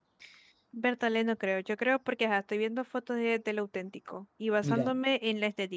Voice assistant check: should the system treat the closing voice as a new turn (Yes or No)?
No